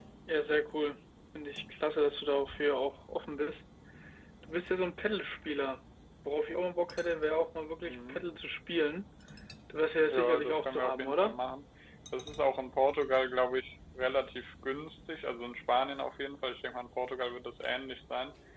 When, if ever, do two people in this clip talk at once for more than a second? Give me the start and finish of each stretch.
10.1-11.4

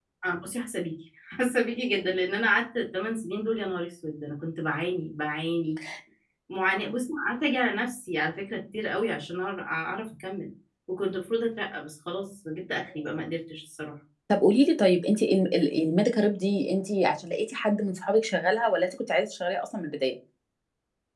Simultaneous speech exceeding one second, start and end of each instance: none

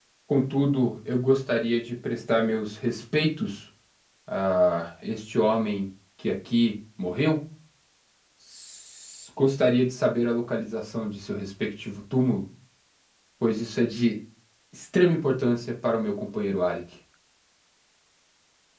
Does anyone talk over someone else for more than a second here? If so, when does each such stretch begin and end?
none

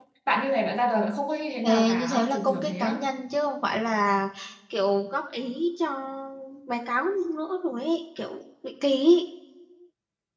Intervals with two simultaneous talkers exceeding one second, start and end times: 1.6-3.0

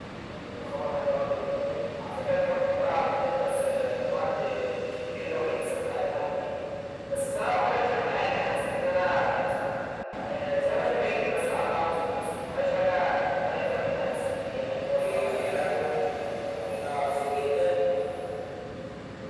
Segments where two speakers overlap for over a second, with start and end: none

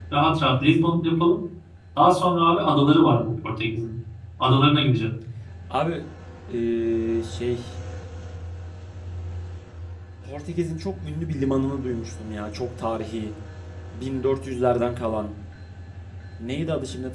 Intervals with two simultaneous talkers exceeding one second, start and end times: none

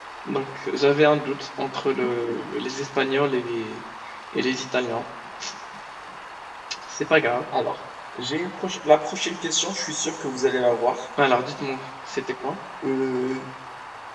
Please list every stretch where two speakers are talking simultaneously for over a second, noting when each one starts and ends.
none

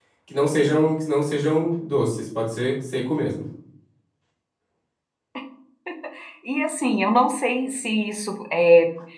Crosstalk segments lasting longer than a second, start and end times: none

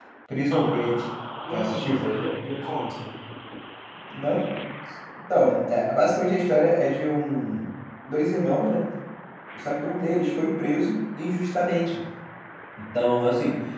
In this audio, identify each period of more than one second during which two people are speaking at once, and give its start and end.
none

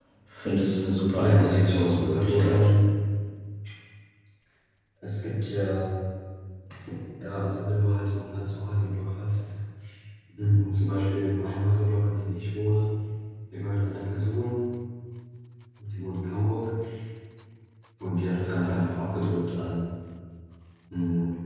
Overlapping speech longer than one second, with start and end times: 1.2-2.6

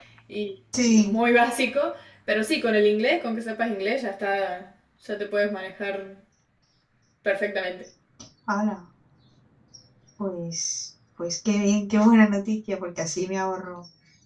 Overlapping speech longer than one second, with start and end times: none

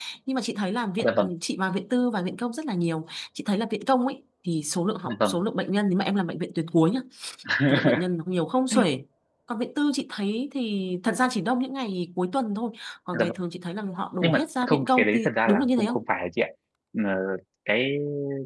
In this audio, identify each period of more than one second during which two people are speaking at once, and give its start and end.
14.2-16.0

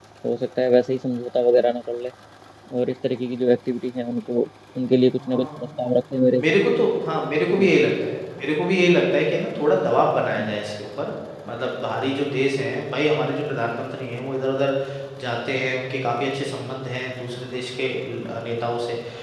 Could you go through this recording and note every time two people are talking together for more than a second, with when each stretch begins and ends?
none

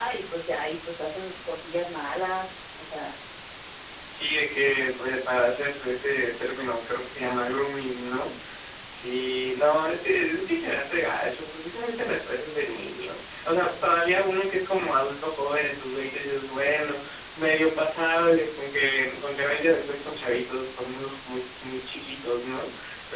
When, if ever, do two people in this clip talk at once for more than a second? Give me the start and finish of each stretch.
none

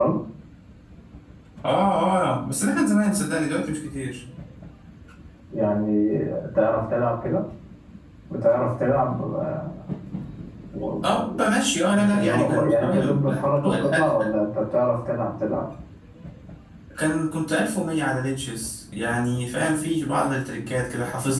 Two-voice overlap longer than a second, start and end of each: 11.9-14.1

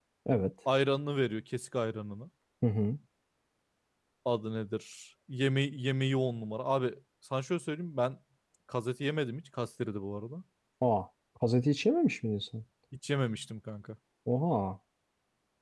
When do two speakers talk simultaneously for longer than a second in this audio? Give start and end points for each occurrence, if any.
none

